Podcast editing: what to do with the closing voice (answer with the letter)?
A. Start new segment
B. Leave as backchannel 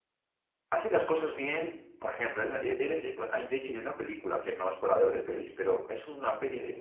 B